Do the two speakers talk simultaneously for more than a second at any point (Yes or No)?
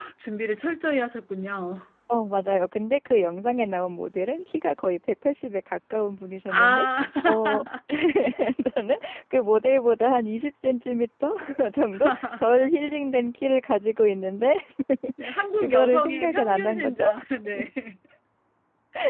Yes